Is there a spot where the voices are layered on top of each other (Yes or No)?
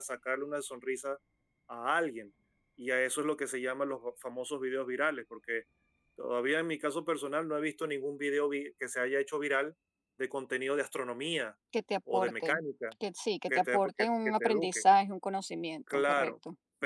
Yes